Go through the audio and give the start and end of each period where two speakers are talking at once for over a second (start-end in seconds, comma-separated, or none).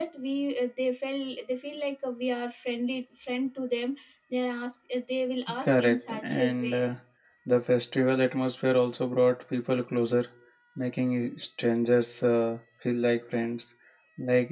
5.6-6.8